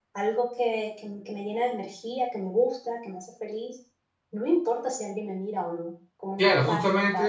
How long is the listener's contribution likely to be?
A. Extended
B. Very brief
A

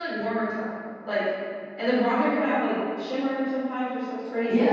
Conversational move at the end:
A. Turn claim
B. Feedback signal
A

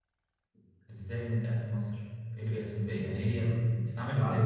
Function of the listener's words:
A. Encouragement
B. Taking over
B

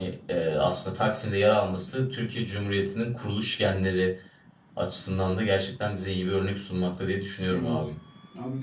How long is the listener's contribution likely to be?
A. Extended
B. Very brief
A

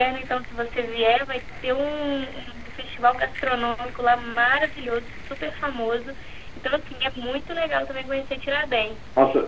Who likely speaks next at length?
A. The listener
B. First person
A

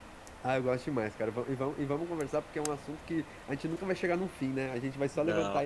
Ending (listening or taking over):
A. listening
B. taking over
A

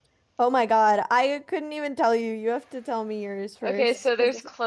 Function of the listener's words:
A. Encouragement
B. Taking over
B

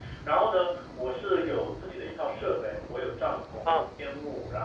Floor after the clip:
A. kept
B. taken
A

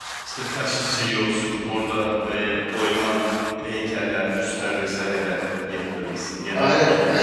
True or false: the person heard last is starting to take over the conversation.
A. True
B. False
A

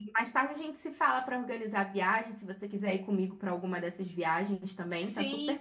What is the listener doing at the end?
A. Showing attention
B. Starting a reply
B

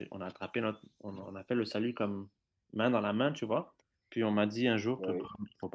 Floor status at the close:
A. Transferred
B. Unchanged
B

